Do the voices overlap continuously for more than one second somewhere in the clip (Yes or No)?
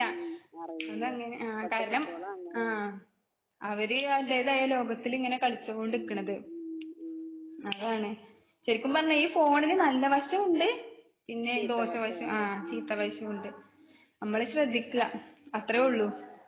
Yes